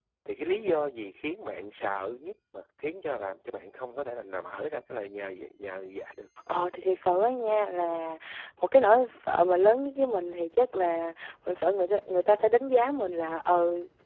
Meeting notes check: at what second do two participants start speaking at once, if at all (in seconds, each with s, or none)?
none